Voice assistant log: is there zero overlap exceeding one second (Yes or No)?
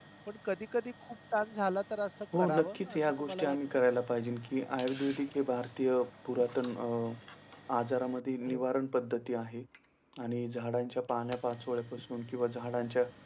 No